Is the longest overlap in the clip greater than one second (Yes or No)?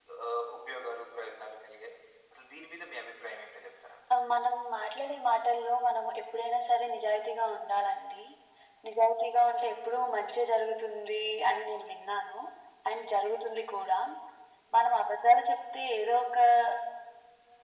No